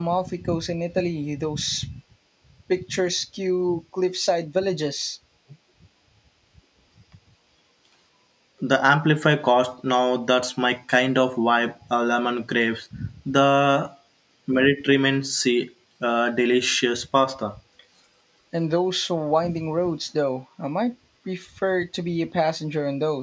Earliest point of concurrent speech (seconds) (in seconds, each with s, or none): none